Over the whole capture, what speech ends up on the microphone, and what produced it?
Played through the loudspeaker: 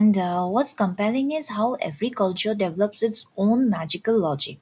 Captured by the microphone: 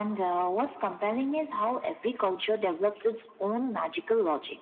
echo only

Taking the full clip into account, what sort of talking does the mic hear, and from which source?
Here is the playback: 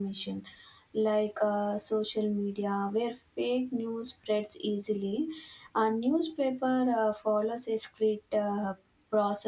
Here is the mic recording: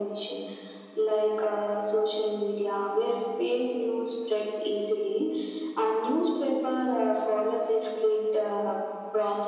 echo only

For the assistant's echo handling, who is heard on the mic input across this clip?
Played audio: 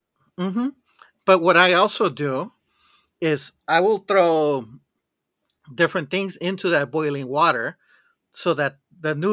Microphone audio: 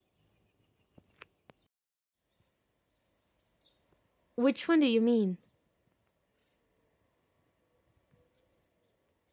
user only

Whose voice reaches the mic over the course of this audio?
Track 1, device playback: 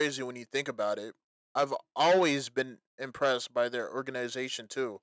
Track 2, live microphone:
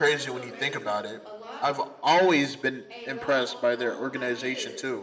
both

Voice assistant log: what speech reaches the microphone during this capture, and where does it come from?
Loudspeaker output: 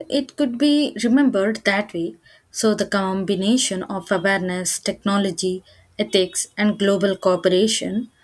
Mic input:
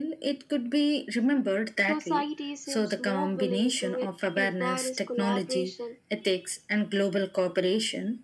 both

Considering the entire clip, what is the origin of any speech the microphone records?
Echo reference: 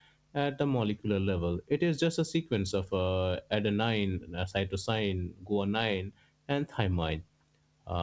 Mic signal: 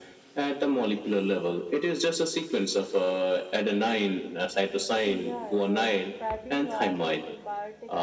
both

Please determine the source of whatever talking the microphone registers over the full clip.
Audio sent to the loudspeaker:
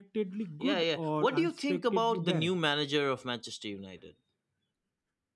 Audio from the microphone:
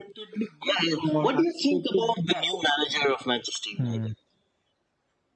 both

